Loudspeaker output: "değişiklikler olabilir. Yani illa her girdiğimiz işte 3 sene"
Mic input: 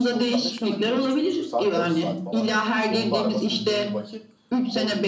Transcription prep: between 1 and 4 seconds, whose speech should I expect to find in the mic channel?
both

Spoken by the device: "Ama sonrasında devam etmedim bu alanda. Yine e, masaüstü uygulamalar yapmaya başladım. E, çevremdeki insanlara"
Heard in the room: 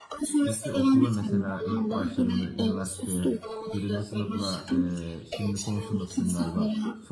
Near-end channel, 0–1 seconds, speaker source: both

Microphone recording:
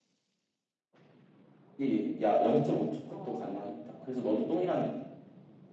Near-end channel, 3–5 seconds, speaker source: both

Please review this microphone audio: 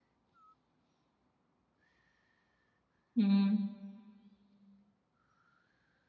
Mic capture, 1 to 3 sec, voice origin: neither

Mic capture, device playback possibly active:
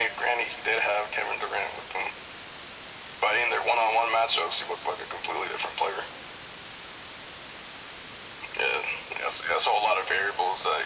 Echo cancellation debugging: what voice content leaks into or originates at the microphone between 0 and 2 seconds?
echo only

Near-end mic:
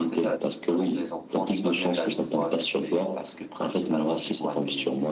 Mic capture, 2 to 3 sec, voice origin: both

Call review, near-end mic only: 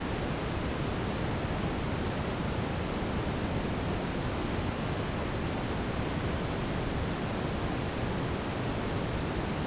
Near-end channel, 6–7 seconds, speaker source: neither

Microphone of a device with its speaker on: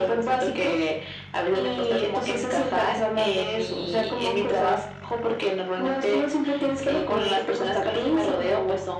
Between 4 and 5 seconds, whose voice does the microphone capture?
echo only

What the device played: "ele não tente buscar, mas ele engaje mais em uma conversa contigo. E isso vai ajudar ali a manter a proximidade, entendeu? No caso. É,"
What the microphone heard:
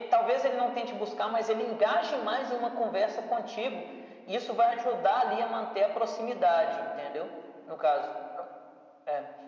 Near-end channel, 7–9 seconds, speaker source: echo only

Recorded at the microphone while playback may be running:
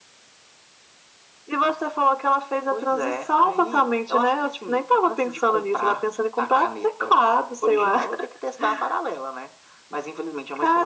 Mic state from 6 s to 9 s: echo only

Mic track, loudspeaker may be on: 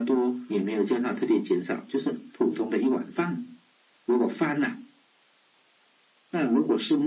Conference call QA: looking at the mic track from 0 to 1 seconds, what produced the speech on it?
echo only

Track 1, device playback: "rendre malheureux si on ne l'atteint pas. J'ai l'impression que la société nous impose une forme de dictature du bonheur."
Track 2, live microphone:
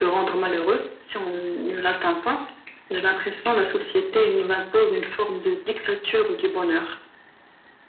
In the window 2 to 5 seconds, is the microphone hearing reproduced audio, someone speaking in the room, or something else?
echo only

